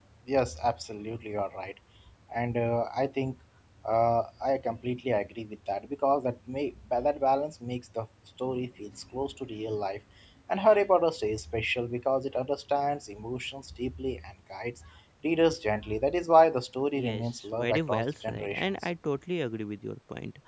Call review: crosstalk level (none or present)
present